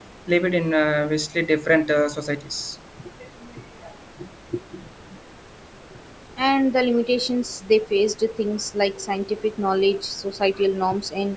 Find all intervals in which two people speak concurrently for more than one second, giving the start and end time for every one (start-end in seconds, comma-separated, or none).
none